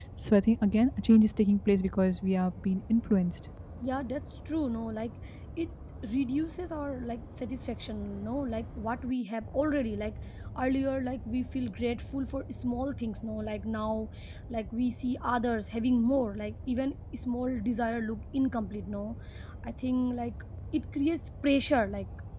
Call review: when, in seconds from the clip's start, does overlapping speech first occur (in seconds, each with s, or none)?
none